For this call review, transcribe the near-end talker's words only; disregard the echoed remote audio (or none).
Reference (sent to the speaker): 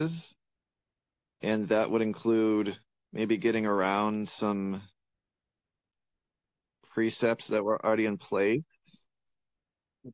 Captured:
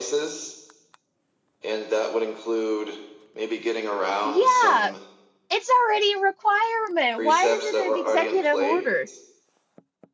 Yeah, it's already a requirement. Why is it an executive order?